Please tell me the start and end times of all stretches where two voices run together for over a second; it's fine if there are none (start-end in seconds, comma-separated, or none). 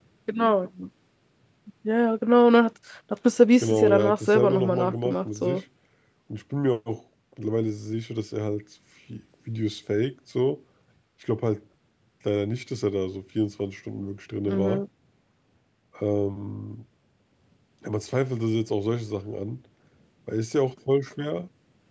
3.6-5.6